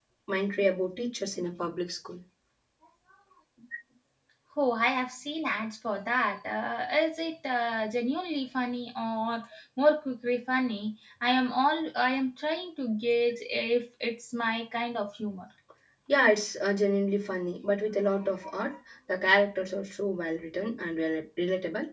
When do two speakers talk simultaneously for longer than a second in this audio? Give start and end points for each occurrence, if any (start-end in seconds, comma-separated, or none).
none